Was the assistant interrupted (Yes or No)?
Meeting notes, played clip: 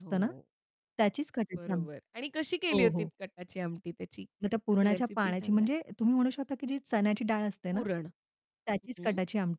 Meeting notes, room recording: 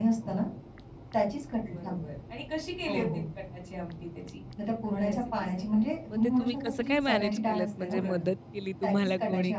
Yes